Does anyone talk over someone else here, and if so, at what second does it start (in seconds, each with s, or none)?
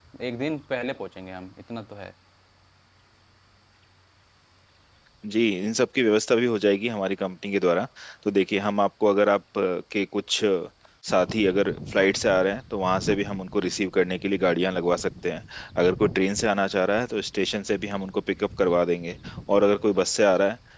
none